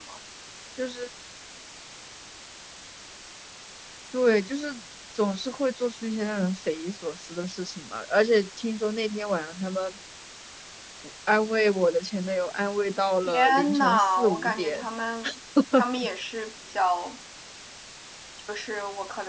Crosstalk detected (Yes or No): Yes